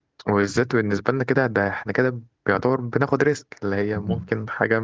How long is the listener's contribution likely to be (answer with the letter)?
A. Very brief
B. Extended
A